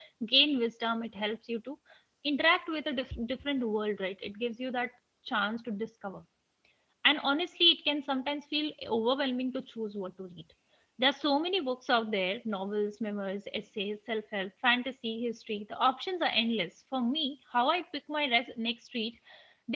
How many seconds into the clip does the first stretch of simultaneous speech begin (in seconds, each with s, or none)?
none